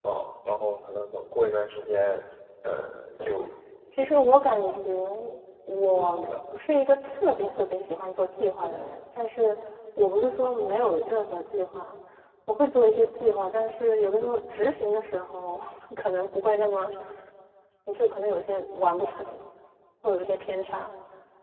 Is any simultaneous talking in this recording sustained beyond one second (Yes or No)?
No